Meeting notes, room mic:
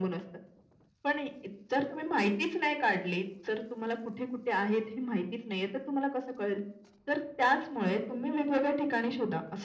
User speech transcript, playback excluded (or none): none